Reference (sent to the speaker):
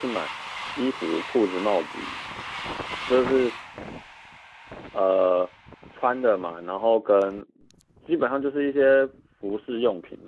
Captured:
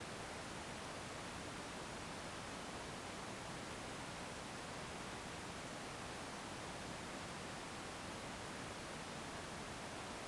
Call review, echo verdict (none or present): none